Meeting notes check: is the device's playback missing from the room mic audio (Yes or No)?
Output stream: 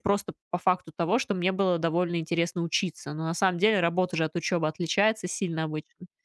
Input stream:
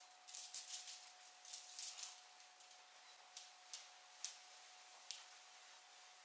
Yes